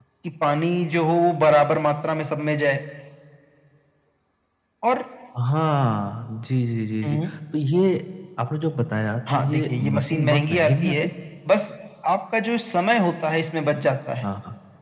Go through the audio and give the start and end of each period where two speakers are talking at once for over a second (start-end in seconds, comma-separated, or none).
9.3-11.1